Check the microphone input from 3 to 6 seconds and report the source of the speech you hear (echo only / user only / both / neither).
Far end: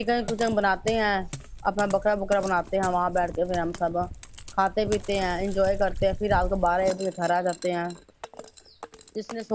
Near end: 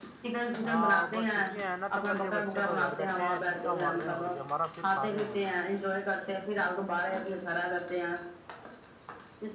both